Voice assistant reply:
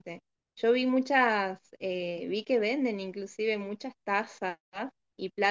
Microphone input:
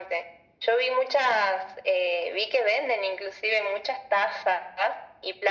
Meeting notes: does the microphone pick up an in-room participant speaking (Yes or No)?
No